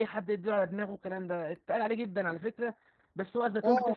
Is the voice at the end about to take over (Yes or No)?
No